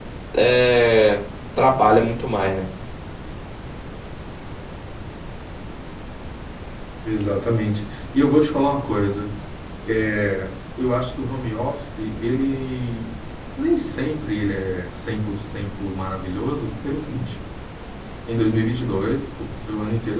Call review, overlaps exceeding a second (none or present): none